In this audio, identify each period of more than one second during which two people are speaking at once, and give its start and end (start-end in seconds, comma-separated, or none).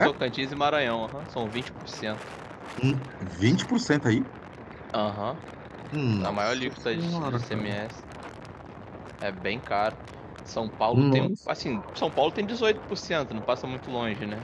6.2-7.8